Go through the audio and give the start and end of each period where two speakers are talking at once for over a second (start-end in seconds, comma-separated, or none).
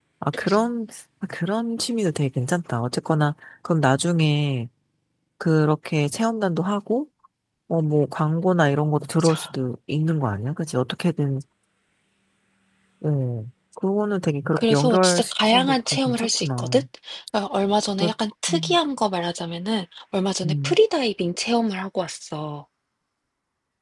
14.6-16.8